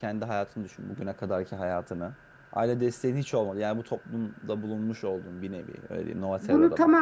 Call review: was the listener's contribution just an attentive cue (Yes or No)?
No